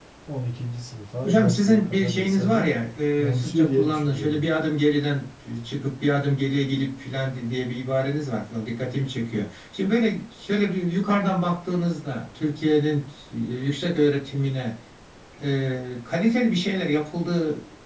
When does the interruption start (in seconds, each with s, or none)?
1.2 s